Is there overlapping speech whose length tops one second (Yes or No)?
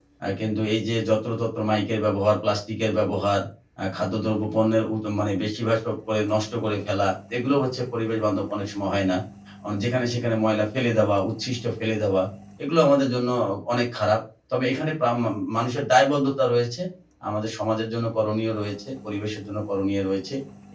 No